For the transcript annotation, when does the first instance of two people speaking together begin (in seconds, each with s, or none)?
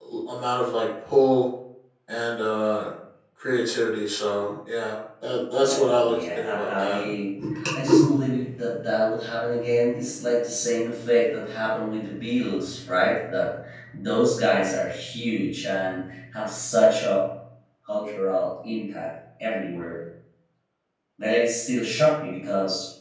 5.6 s